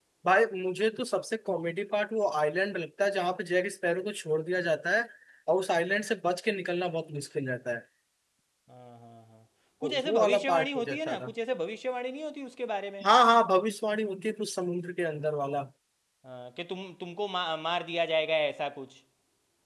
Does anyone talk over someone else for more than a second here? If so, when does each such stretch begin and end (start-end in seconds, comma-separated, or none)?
9.8-11.3